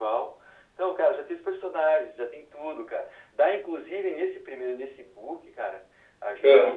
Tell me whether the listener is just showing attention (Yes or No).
Yes